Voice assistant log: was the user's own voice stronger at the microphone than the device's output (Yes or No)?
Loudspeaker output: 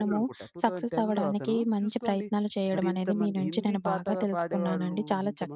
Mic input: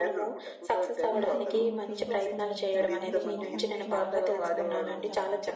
No